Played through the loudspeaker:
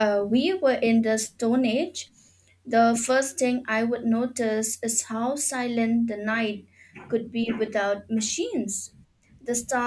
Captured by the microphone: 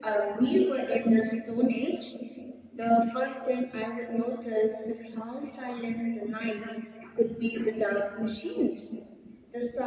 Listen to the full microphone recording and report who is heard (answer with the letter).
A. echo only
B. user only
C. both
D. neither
A